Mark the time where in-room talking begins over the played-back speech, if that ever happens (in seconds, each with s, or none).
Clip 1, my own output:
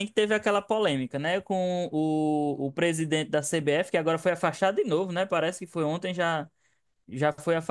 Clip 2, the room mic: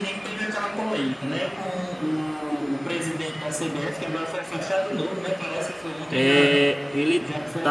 6.1 s